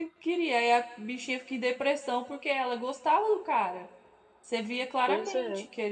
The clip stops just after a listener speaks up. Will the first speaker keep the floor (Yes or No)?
Yes